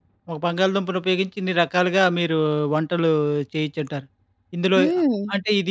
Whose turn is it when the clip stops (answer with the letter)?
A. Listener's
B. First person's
B